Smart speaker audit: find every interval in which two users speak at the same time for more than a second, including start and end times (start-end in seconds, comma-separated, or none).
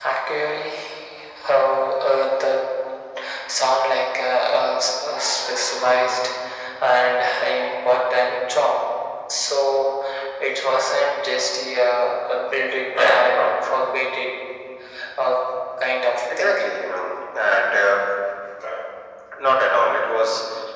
none